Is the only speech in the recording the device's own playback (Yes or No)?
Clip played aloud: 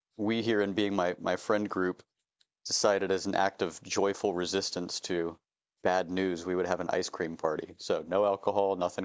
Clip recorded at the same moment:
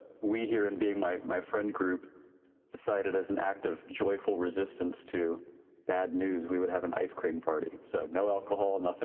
Yes